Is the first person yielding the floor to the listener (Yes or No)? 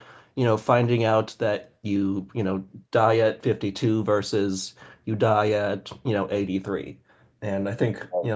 No